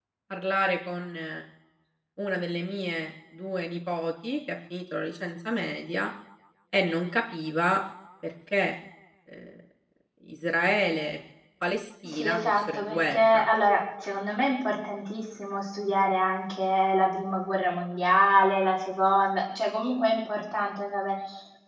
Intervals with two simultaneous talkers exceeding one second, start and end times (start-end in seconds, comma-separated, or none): 12.0-13.4